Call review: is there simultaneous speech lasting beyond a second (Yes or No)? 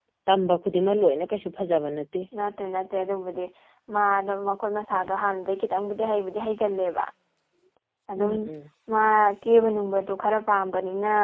No